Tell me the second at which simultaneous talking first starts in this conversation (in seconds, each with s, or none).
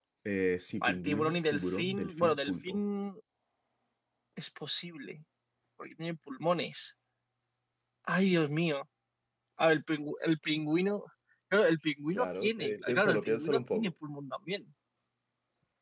0.8 s